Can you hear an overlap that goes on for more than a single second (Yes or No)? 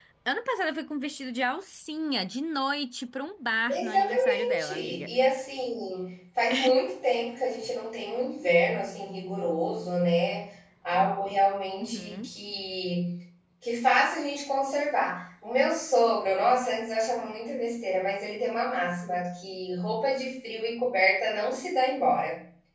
Yes